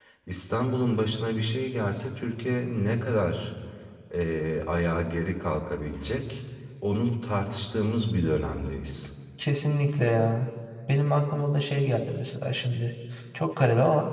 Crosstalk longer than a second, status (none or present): none